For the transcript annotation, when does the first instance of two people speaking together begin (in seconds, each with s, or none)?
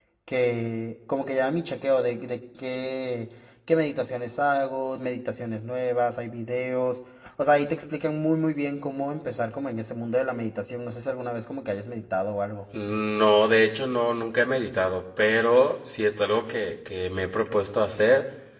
none